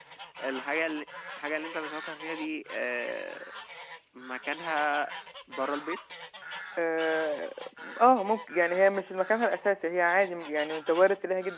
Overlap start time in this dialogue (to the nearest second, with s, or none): none